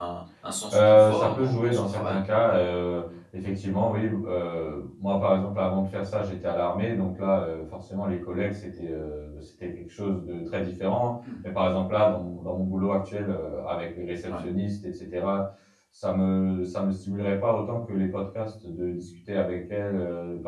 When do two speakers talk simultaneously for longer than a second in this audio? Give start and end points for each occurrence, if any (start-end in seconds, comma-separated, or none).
0.7-2.2